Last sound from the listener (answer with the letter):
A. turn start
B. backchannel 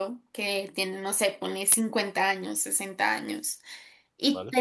B